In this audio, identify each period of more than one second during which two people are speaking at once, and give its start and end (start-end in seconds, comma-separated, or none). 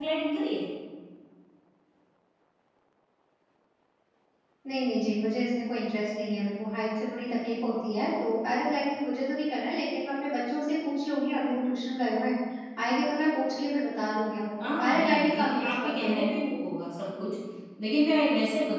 14.6-16.3